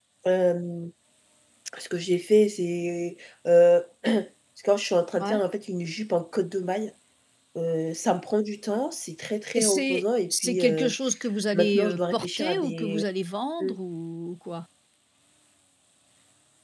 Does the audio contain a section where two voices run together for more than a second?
Yes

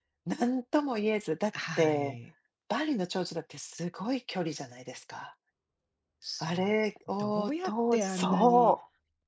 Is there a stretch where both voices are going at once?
Yes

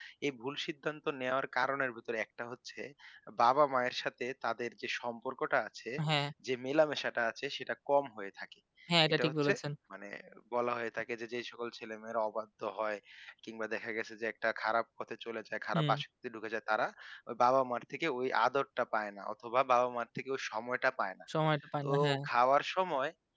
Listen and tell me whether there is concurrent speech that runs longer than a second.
No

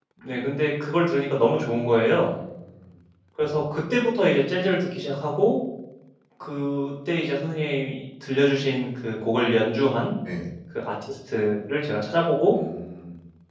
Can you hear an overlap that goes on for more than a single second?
No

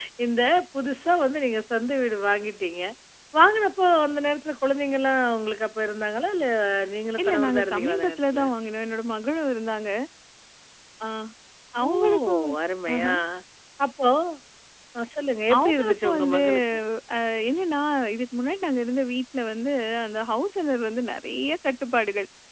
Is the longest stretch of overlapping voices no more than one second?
No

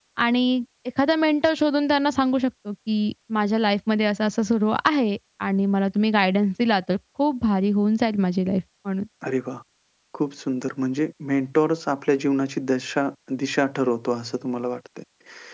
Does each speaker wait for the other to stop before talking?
Yes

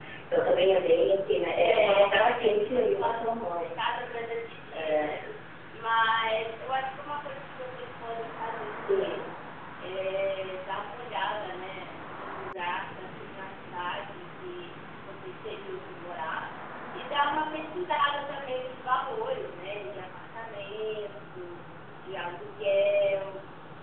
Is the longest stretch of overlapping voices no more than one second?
No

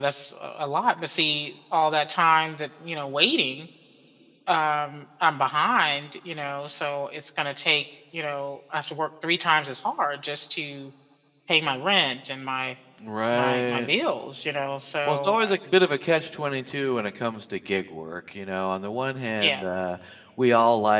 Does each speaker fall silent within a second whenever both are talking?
Yes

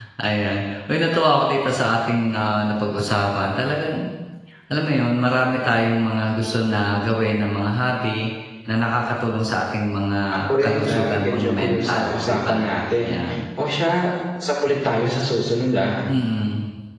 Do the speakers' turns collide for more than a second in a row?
Yes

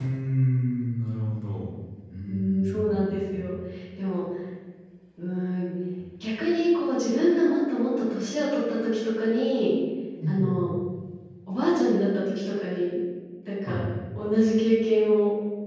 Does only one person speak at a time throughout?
No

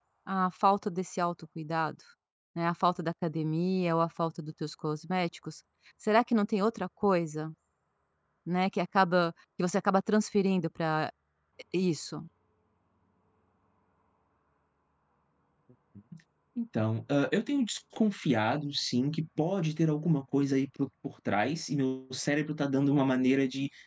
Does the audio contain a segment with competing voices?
No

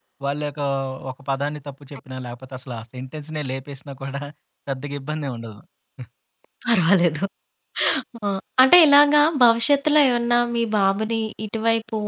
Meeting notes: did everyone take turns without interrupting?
Yes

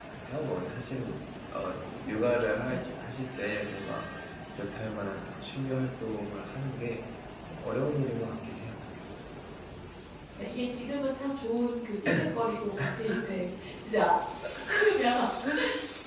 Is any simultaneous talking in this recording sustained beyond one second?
No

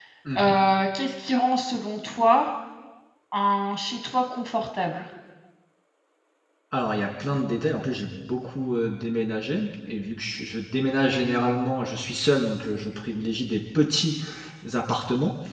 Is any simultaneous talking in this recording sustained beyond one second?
No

